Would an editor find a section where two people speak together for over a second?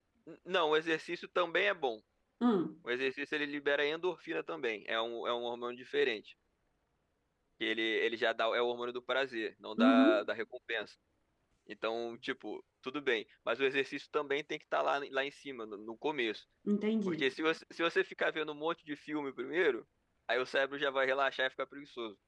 No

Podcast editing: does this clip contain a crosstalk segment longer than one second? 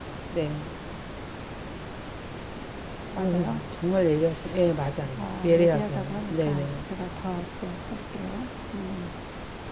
Yes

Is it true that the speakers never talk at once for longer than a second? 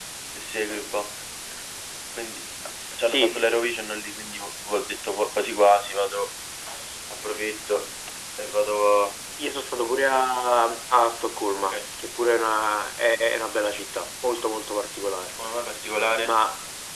Yes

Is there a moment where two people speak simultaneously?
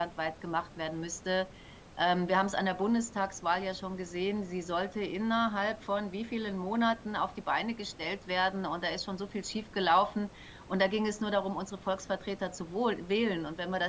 No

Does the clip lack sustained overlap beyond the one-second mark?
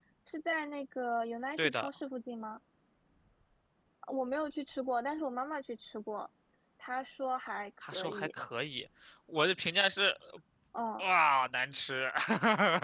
Yes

